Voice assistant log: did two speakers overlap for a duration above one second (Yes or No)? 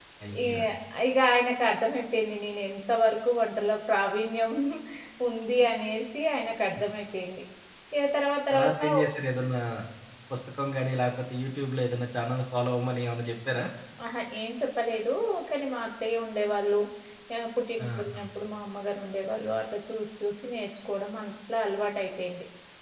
No